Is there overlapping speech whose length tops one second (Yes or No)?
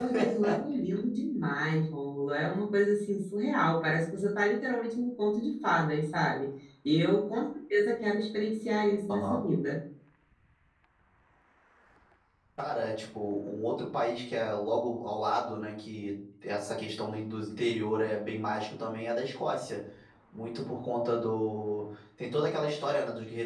No